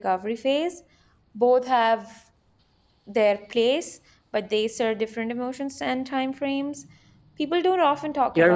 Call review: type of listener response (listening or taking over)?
taking over